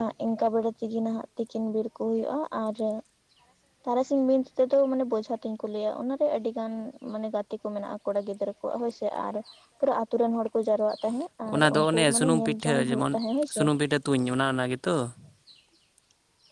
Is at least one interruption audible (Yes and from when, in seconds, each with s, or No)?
Yes, from 11.5 s